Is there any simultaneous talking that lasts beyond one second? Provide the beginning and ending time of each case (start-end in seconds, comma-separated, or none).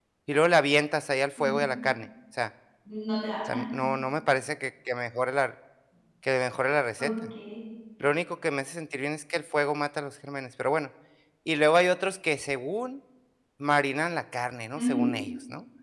none